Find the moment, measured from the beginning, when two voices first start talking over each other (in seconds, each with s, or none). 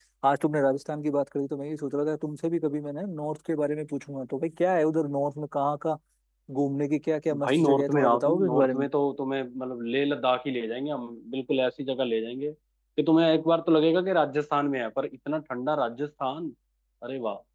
7.3 s